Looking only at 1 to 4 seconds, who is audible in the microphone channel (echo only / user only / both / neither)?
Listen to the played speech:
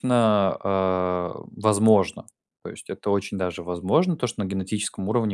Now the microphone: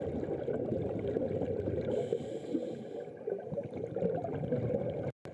neither